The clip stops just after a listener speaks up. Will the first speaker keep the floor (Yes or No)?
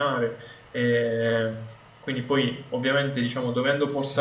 Yes